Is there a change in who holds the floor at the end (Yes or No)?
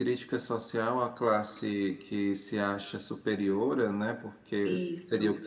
No